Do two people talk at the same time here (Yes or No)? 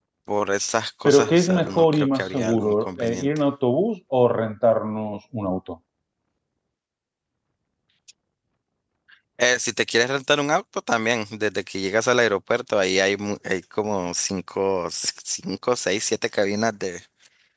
Yes